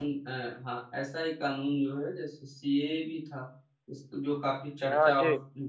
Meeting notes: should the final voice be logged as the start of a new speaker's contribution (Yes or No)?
No